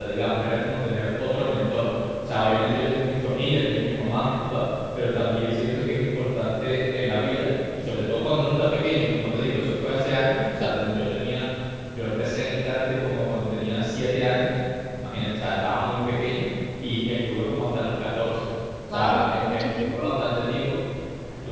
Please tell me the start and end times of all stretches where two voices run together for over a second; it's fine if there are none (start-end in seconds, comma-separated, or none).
18.9-20.2